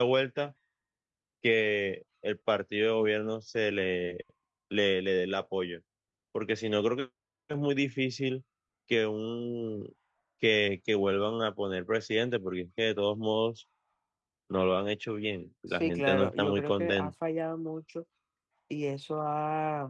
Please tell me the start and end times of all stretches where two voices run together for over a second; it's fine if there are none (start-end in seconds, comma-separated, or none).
15.7-17.1